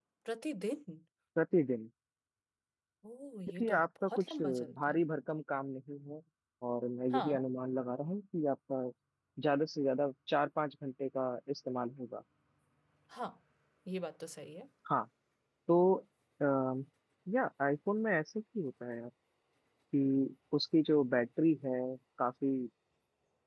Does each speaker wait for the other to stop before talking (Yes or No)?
No